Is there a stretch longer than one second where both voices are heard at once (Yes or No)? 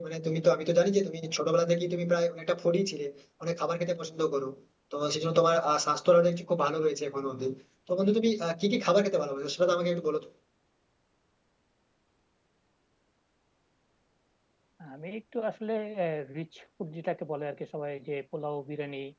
No